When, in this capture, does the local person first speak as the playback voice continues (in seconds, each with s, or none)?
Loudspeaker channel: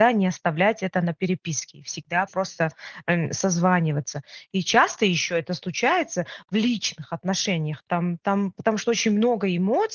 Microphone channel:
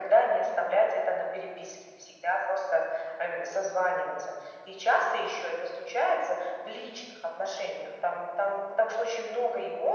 none